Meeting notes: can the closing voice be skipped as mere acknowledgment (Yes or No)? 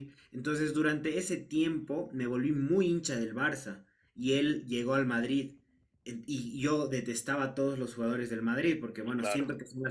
Yes